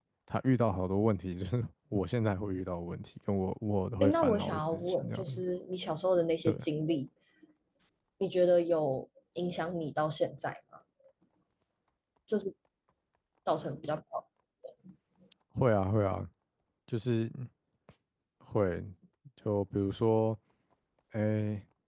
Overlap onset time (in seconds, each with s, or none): 4.0 s